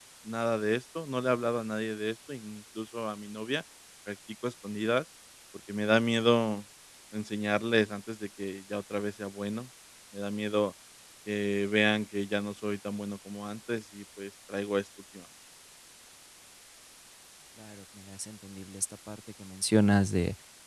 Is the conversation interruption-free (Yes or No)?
Yes